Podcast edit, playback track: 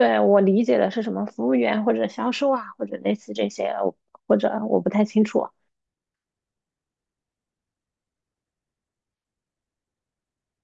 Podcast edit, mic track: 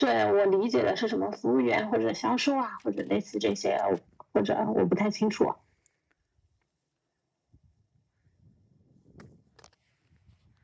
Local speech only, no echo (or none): none